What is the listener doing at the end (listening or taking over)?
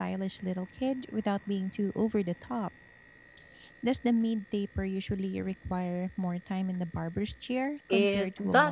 taking over